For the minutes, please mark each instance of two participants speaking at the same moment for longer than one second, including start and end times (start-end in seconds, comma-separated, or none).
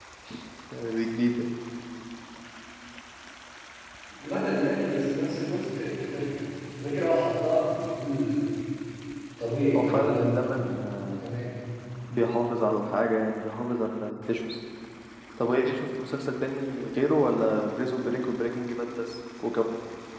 9.8-10.9